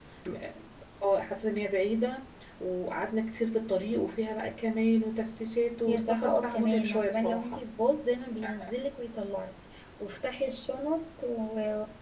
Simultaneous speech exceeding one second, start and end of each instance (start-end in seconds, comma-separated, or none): 5.8-7.6